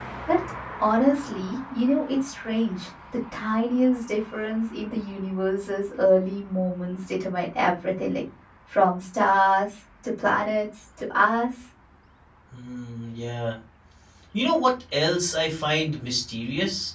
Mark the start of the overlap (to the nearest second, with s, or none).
none